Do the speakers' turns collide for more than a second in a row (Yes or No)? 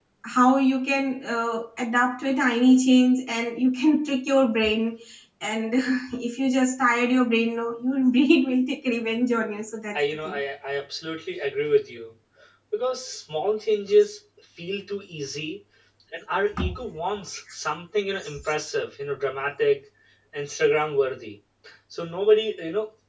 No